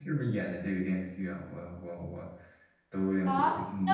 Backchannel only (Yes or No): No